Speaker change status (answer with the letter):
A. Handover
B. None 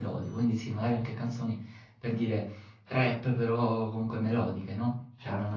A